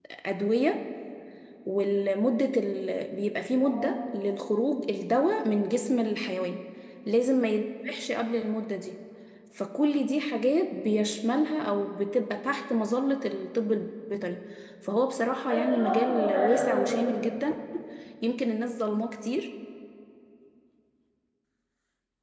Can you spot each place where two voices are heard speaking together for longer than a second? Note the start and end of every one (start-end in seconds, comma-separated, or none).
15.5-17.2